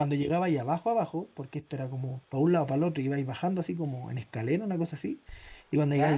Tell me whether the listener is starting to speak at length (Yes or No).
No